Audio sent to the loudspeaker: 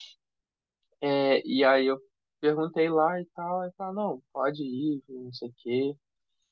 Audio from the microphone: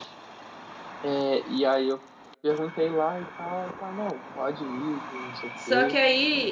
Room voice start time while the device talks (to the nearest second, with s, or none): 6 s